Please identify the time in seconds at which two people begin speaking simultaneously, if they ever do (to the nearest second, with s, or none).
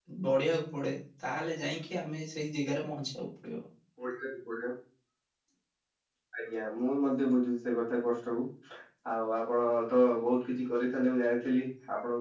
none